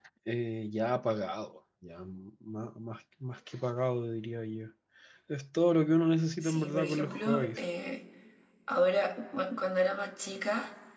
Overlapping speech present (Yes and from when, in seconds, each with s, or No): Yes, from 6.4 s